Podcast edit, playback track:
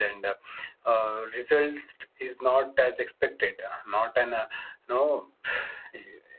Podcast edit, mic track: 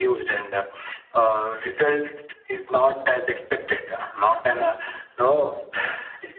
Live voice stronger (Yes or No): No